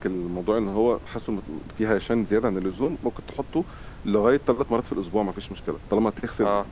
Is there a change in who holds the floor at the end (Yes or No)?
No